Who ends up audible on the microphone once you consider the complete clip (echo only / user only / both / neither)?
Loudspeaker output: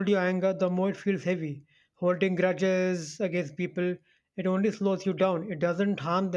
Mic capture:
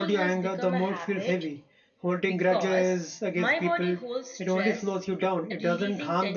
both